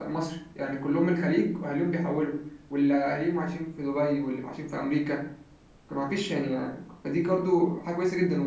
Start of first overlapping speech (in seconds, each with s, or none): none